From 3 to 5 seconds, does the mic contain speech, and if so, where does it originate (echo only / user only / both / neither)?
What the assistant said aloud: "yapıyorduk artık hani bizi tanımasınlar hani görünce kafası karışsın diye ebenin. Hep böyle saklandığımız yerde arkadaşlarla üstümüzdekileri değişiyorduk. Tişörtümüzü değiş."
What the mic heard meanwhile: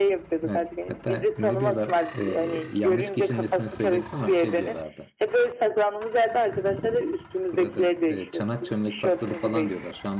both